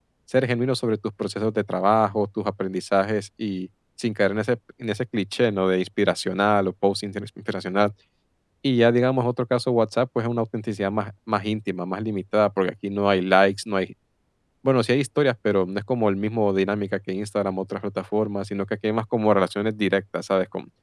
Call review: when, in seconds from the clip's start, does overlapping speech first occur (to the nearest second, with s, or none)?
none